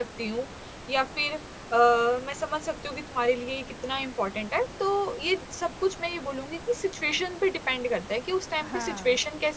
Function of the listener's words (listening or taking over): listening